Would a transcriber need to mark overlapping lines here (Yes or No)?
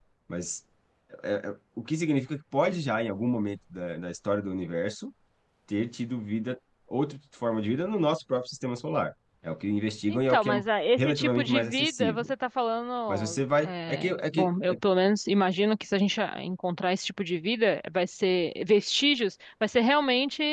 Yes